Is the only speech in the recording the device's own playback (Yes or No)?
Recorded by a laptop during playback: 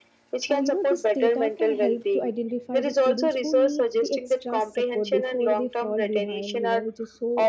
No